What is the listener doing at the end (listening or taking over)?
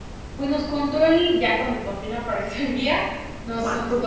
taking over